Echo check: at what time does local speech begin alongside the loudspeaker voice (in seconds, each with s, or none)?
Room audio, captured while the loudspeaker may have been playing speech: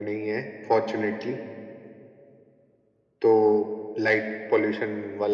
none